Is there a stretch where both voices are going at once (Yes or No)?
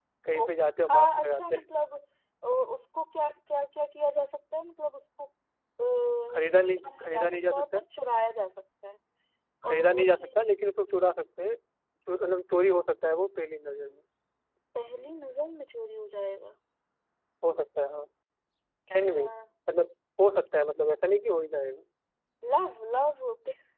Yes